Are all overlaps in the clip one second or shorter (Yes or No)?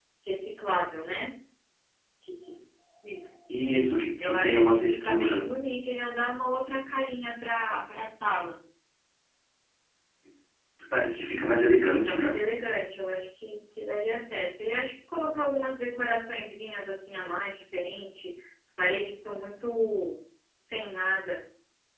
No